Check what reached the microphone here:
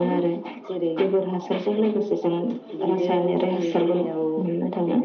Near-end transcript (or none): none